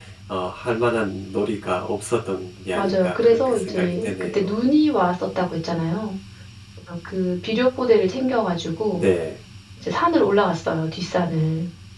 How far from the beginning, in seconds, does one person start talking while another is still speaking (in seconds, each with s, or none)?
2.7 s